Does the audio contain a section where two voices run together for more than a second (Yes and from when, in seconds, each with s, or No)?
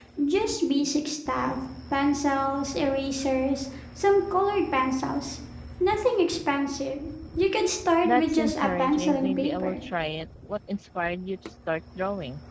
Yes, from 8.0 s